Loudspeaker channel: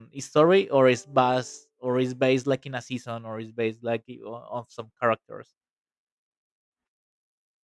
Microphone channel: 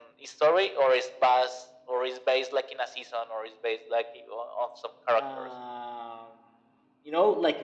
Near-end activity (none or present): present